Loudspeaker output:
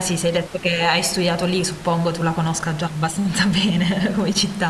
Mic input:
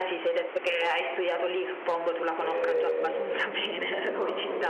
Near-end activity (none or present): present